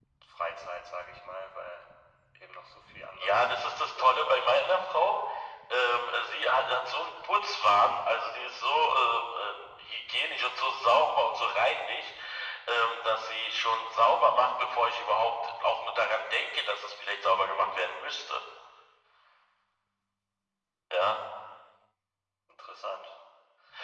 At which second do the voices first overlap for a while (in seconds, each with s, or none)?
3.2 s